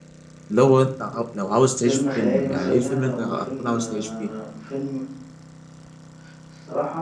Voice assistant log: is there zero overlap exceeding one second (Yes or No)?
No